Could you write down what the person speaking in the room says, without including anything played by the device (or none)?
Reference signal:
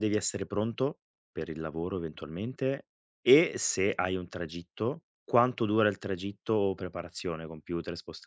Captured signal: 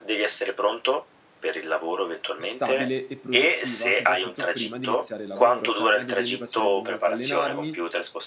stabile e produttiva, soprattutto prima di iniziare il lavoro. Sai, a me ad esempio piacerebbe molto allenarmi,